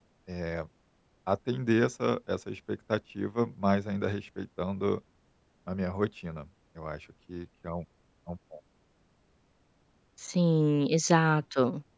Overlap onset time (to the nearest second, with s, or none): none